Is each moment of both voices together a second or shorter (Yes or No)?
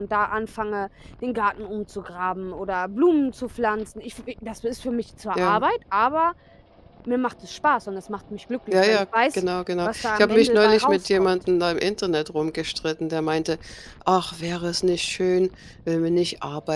No